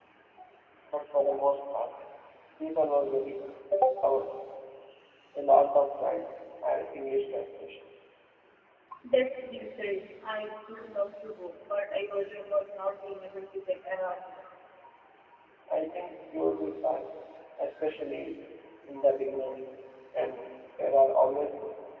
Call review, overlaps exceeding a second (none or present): none